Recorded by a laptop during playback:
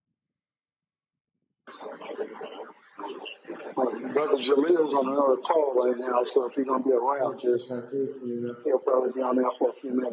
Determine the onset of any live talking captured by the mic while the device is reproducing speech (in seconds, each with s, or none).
7.2 s